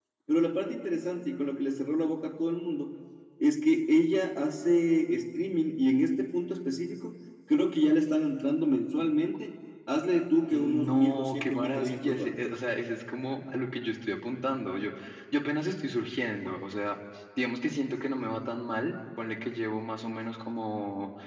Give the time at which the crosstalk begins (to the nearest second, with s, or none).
10 s